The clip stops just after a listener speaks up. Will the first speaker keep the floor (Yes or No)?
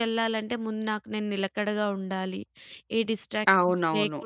No